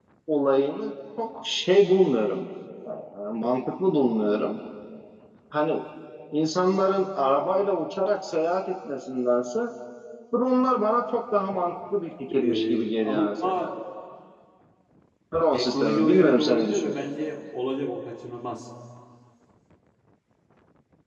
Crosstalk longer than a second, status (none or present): present